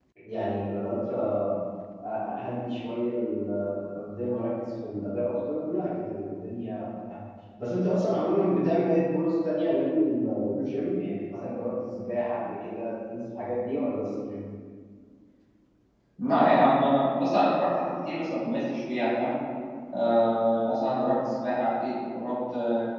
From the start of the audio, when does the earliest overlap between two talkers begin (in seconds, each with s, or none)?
none